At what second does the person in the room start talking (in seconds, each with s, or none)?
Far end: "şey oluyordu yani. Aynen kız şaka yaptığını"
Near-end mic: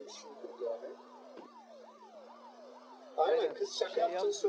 3.2 s